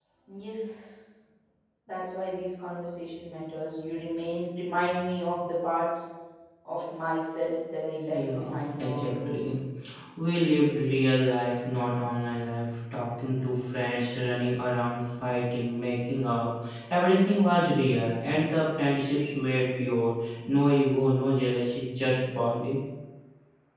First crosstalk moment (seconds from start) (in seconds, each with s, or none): 8.1 s